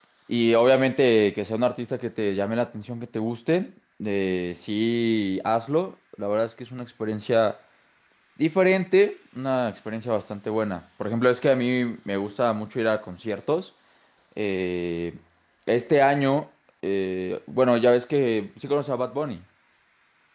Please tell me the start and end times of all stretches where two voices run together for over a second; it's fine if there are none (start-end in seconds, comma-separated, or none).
none